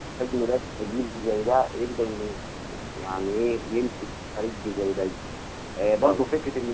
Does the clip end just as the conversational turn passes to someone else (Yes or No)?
No